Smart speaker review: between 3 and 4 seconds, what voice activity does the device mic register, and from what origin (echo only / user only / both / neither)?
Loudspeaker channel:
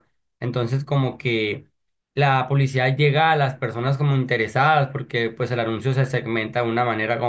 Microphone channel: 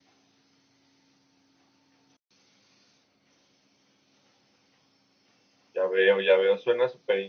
neither